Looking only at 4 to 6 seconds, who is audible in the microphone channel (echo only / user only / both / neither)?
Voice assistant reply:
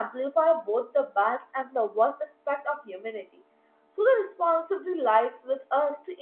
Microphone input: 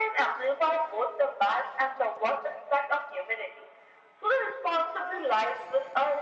both